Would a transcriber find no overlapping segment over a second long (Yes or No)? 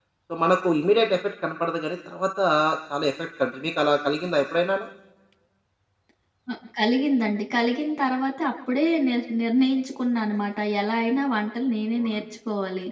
Yes